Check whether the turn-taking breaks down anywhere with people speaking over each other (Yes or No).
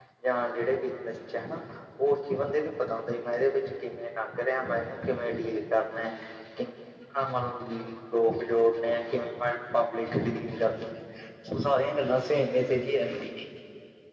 No